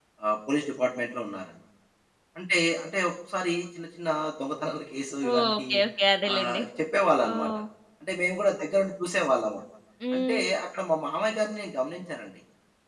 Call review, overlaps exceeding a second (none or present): none